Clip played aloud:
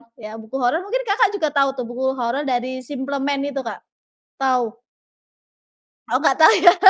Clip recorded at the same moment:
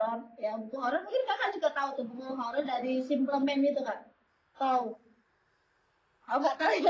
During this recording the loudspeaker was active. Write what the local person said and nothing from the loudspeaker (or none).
none